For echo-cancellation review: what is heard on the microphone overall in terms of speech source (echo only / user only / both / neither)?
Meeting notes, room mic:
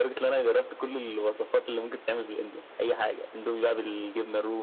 echo only